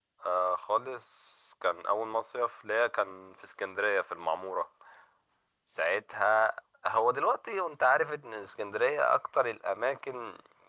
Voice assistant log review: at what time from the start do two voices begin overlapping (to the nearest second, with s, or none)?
none